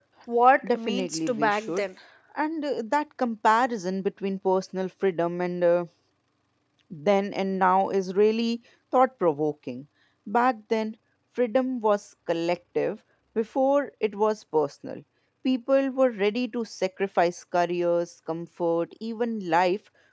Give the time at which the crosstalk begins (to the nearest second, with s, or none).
1 s